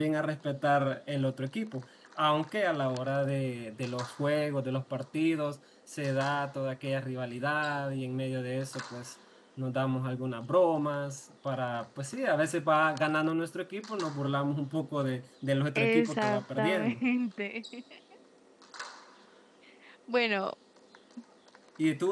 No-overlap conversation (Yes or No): No